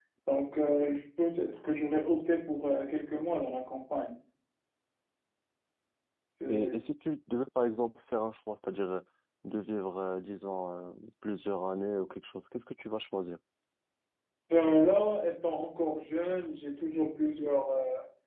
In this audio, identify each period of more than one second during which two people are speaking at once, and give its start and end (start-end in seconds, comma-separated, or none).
none